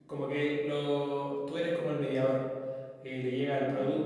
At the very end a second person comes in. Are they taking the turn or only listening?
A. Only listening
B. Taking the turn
A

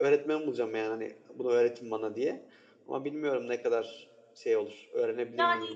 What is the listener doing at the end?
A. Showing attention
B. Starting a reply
B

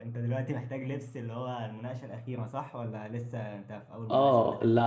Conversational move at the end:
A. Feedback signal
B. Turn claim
B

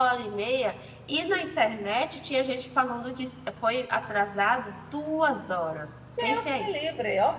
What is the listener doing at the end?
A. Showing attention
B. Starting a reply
B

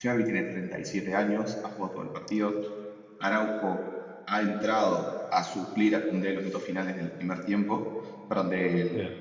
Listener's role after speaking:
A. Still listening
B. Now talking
A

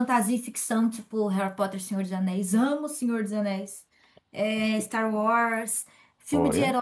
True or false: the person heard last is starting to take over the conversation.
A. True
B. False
B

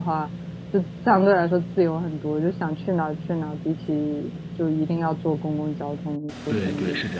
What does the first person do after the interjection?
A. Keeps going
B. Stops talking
B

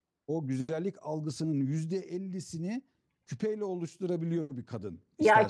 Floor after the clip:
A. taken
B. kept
A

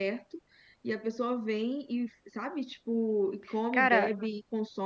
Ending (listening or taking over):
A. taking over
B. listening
B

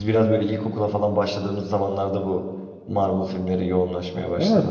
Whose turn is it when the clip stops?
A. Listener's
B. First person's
A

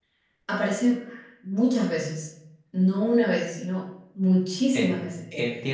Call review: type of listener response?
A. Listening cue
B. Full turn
B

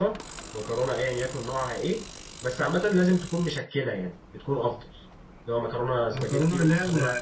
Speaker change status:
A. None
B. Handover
B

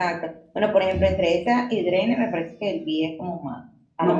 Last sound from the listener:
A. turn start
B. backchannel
B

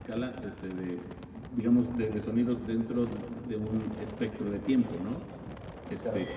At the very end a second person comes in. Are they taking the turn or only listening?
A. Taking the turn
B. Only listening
B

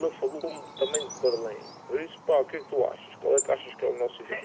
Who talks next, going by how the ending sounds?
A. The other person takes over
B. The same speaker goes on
A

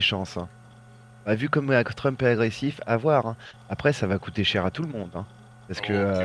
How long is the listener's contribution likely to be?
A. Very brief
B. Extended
B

